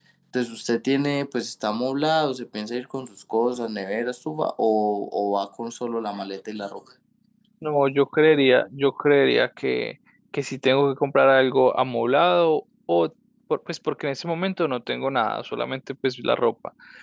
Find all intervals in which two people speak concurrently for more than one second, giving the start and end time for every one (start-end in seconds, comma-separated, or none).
none